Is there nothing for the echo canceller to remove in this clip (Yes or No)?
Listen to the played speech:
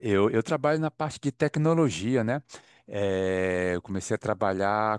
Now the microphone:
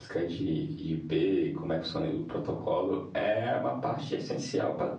Yes